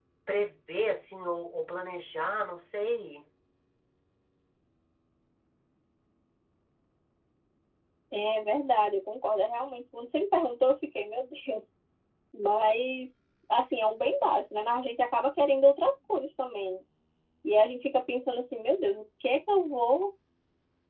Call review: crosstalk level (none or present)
none